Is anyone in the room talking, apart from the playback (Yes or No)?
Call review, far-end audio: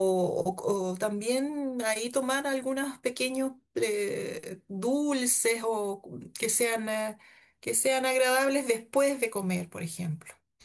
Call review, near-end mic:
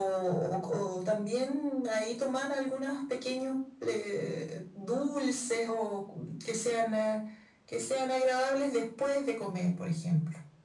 No